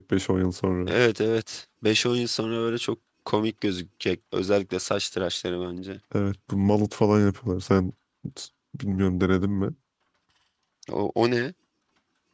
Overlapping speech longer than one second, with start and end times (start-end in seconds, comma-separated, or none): none